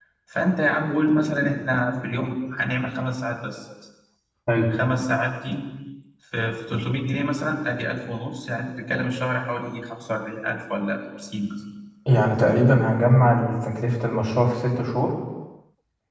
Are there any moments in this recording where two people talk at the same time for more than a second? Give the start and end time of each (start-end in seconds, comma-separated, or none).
none